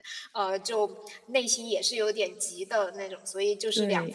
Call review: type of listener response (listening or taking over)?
listening